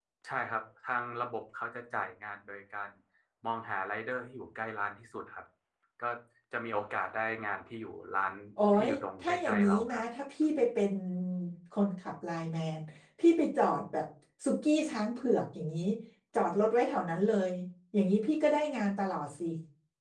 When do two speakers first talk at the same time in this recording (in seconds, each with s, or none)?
8.7 s